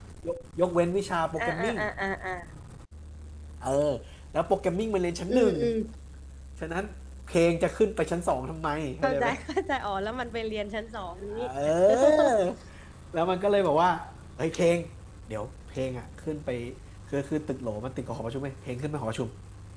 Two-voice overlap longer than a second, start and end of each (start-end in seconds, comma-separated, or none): none